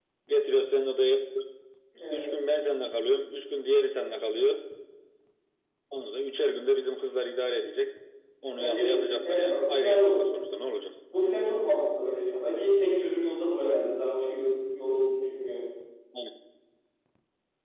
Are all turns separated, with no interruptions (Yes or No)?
No